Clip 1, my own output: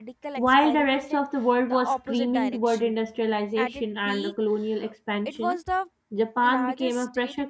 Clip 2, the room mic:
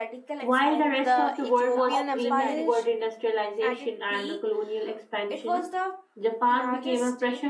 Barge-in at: 1.0 s

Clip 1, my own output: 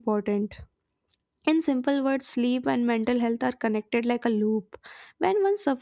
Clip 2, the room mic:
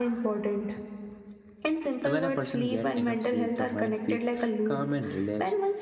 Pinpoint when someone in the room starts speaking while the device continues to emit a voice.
2.0 s

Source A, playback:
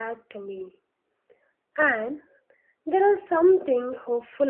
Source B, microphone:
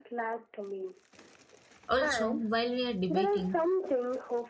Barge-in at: 1.9 s

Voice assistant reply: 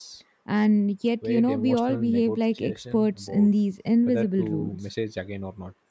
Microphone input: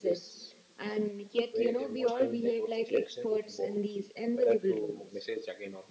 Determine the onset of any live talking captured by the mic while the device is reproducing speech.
none

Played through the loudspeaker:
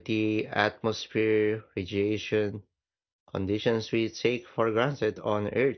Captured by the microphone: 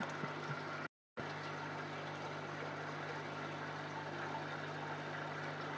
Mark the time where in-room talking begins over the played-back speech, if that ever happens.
none

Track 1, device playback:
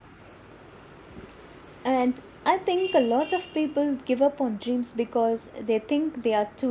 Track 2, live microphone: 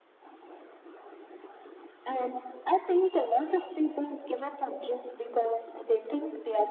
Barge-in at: none

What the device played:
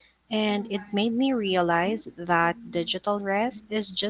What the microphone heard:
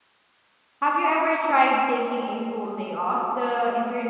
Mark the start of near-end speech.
0.8 s

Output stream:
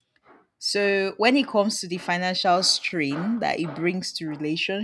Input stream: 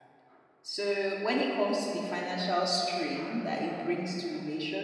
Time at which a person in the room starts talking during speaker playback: none

